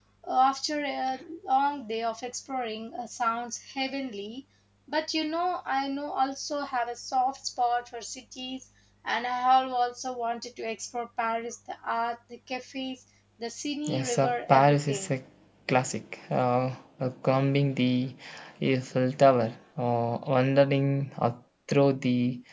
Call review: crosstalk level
present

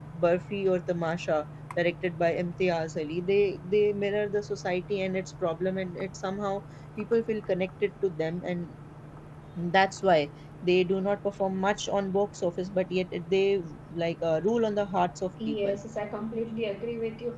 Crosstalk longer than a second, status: none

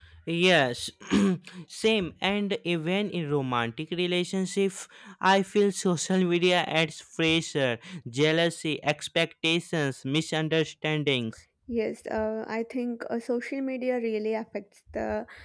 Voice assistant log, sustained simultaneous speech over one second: none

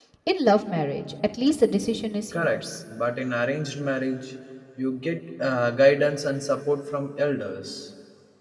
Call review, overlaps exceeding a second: none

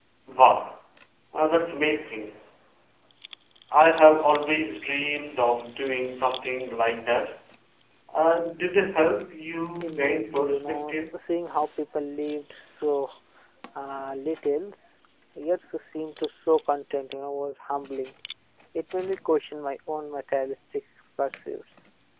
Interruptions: present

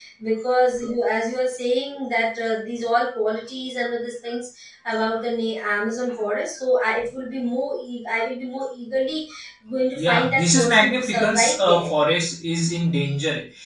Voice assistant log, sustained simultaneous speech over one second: present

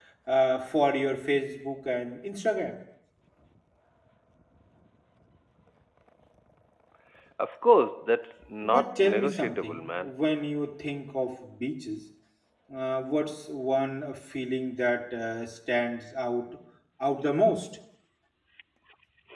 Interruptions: present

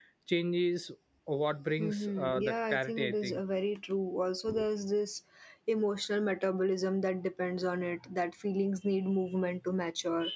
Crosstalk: present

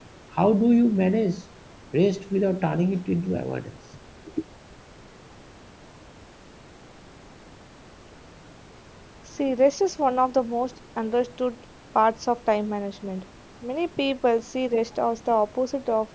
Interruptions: none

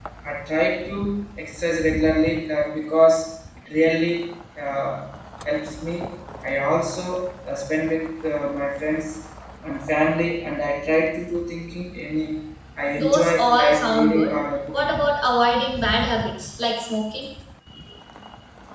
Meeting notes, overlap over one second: present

